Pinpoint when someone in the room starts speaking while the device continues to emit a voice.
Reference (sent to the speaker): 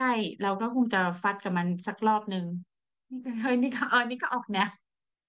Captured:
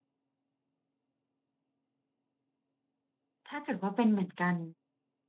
3.5 s

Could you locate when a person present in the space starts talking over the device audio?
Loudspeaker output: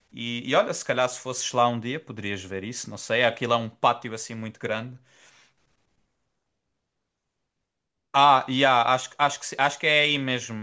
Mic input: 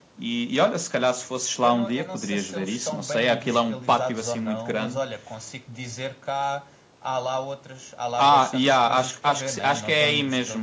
1.6 s

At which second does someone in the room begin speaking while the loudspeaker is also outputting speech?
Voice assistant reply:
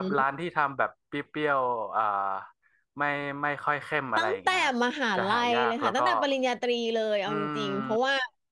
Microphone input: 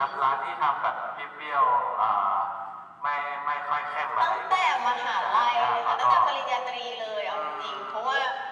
none

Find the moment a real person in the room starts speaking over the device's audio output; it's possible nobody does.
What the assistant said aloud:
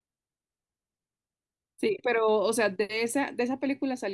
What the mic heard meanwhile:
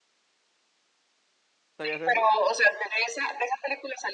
1.8 s

